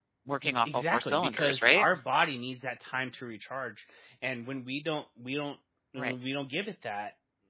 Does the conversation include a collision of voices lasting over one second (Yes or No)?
Yes